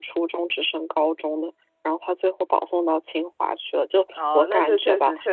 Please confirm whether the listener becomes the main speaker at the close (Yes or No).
Yes